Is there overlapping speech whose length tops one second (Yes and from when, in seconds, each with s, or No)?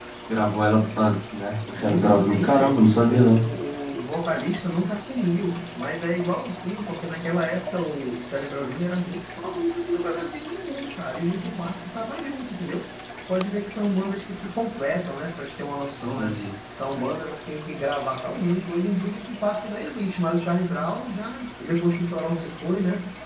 Yes, from 1.7 s